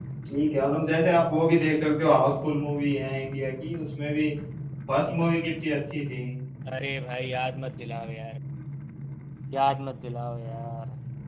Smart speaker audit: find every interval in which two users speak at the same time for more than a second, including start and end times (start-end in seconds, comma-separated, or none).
none